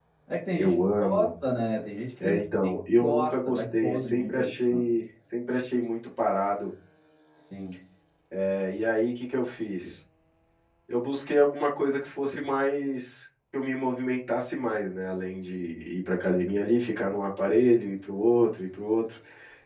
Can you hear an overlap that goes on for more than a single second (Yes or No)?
Yes